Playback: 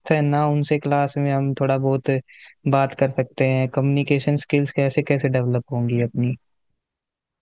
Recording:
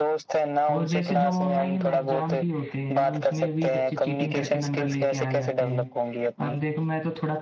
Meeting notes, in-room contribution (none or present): present